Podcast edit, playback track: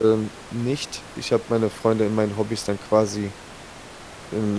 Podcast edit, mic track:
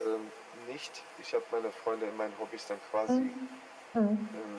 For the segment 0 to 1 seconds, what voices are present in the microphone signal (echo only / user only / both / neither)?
echo only